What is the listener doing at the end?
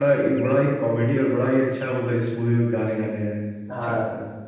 taking over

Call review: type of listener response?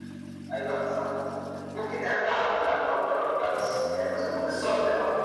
taking over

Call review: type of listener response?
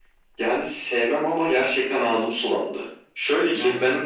listening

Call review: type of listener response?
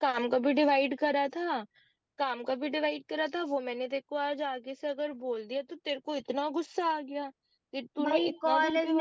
taking over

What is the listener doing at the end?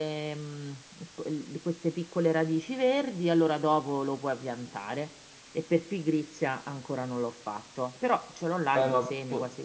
taking over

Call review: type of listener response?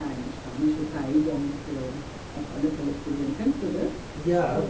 taking over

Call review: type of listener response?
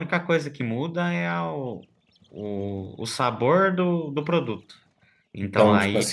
taking over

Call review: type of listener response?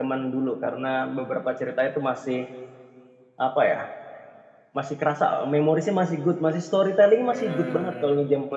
listening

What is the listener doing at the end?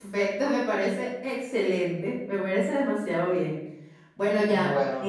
listening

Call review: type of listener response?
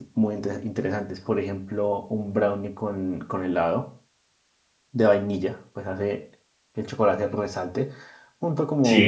listening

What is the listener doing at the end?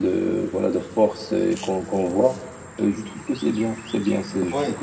taking over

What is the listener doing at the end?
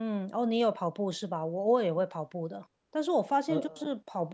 listening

